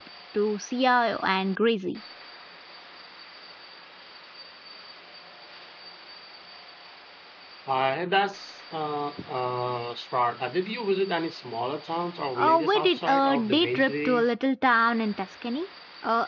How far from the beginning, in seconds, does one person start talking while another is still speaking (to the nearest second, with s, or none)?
12 s